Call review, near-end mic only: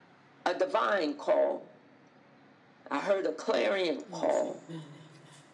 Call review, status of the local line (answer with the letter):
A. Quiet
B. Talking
B